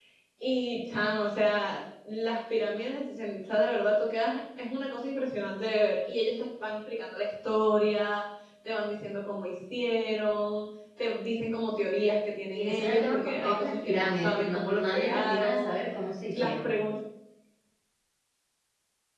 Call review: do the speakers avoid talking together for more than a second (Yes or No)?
No